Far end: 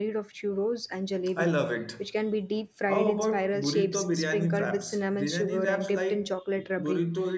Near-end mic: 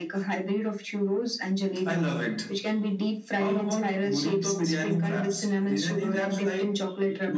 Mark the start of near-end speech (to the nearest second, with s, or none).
none